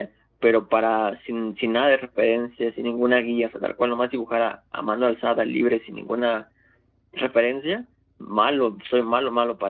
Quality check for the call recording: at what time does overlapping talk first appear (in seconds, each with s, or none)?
none